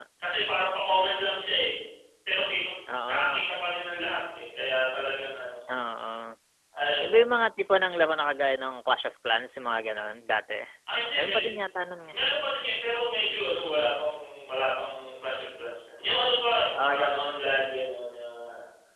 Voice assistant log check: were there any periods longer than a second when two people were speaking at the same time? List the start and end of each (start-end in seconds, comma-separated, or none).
none